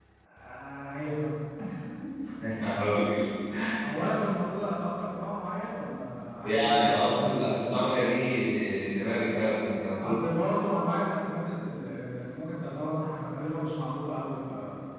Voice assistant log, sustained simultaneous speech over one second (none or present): present